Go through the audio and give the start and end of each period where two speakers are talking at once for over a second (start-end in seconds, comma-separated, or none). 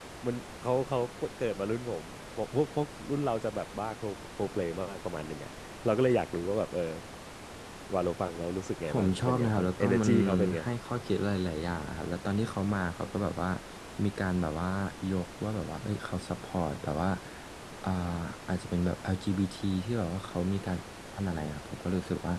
8.8-10.6